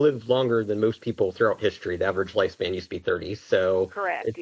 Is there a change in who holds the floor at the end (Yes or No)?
No